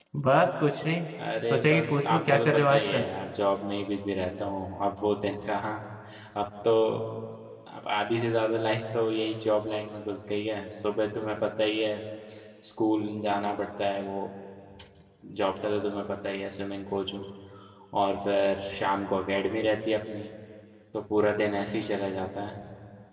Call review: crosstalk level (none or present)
present